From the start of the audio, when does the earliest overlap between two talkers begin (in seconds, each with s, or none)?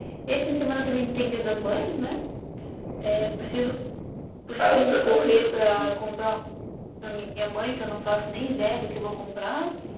4.6 s